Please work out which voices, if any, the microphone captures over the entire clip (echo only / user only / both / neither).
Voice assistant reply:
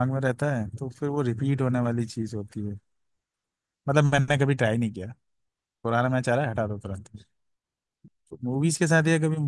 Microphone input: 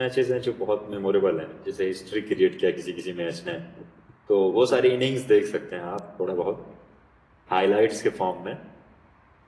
user only